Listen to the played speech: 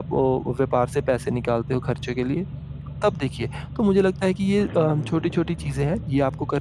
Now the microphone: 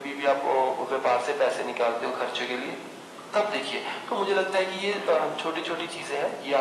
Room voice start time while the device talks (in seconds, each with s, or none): none